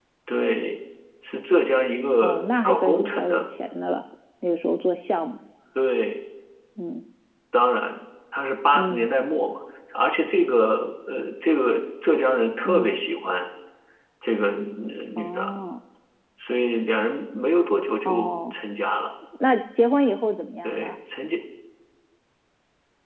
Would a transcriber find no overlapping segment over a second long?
No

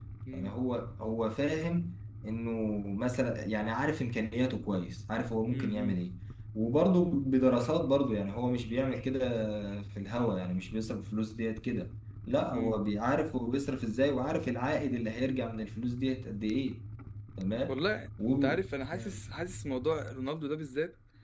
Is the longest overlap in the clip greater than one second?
No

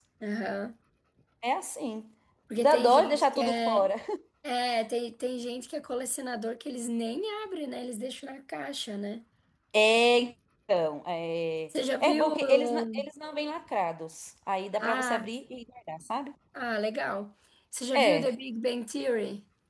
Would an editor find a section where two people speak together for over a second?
Yes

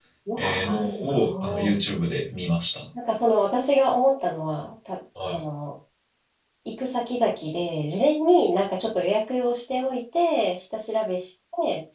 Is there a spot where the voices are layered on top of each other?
Yes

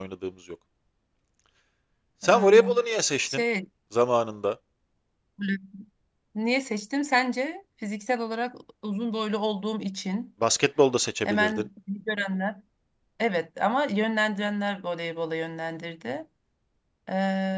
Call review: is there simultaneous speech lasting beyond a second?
No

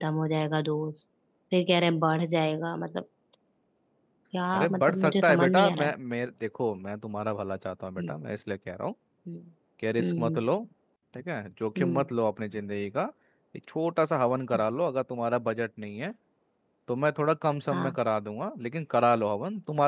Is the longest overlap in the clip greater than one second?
Yes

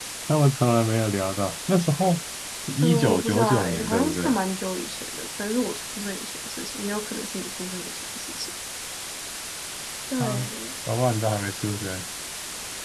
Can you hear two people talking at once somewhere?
Yes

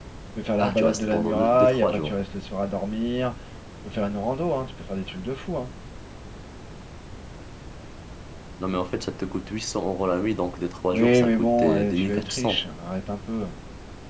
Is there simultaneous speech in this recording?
Yes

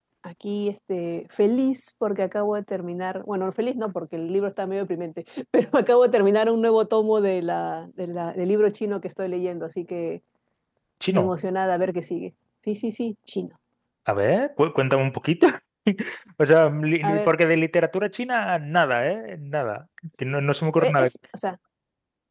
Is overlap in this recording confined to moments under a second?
Yes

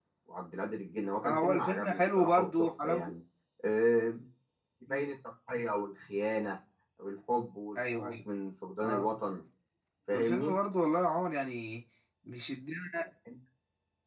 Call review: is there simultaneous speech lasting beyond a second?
Yes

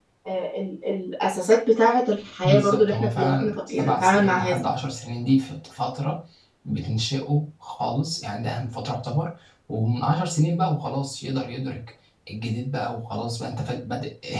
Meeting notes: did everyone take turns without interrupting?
No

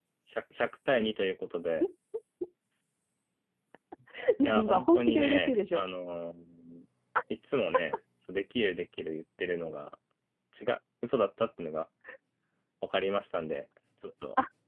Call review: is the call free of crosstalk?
No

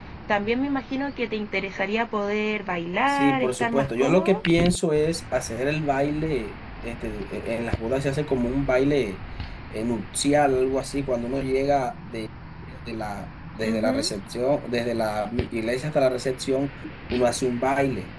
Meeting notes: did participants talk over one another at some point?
Yes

